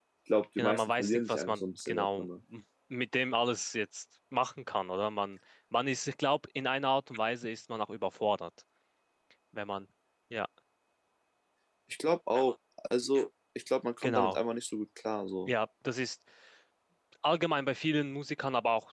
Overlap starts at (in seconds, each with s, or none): 0.6 s